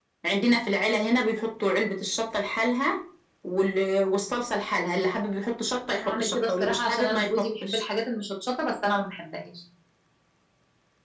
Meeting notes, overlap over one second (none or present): present